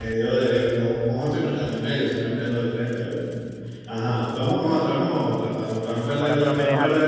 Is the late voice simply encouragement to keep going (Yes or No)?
No